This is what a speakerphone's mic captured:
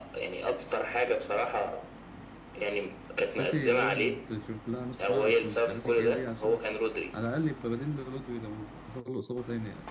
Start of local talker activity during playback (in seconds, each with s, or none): 3.1 s